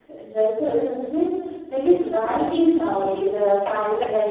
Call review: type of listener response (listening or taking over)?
taking over